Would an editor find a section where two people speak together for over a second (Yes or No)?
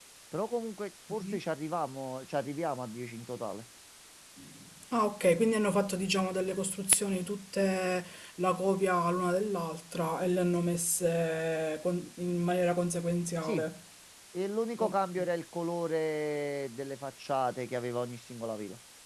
No